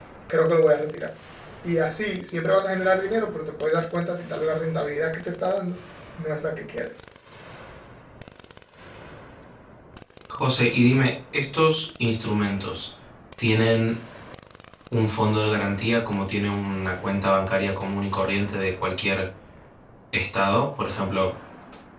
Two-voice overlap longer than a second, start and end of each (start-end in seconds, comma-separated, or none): none